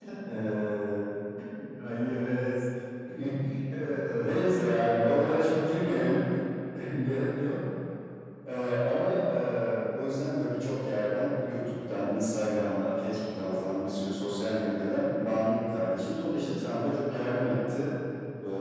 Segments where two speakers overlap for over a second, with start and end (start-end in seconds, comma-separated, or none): none